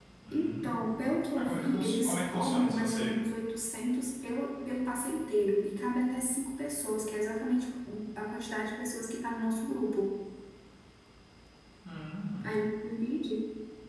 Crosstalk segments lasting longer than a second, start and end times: 1.4-3.2

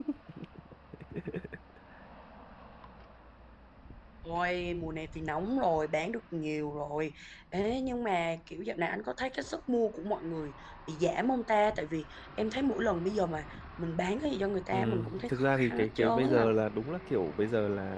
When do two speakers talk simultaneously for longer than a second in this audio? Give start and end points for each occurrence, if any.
14.7-16.5

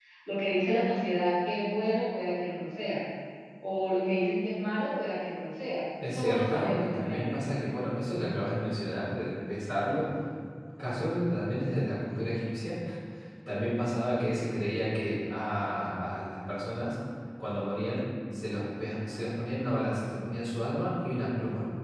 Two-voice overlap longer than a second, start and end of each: 6.0-7.4

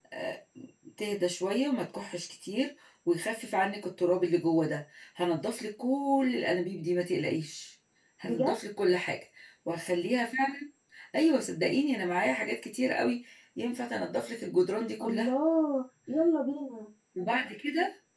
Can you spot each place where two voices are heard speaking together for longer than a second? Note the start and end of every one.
none

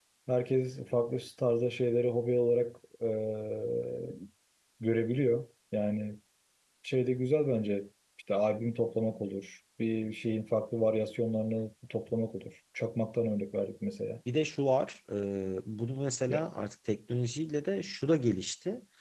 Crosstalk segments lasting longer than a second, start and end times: none

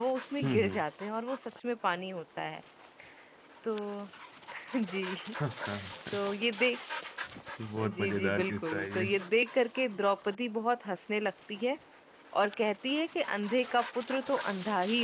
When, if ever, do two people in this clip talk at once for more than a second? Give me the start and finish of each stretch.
7.8-9.0

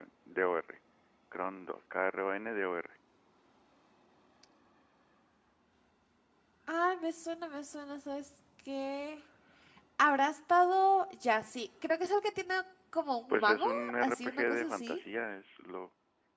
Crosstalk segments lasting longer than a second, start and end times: 13.3-15.0

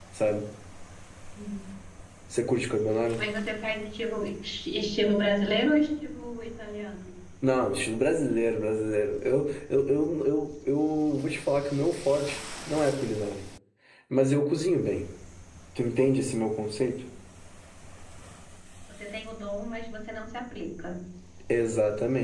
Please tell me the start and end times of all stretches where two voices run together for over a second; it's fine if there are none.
none

